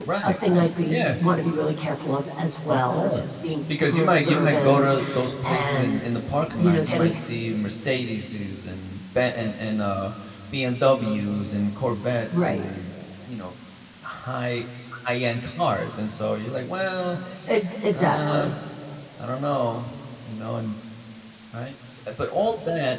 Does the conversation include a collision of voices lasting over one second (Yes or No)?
Yes